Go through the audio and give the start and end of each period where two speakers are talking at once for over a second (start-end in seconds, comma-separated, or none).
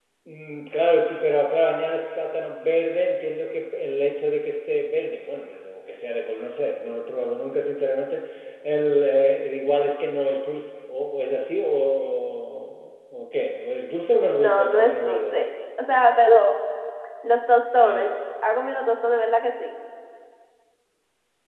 14.1-15.3